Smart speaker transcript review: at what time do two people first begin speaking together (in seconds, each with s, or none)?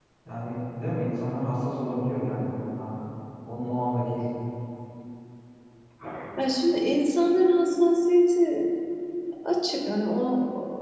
none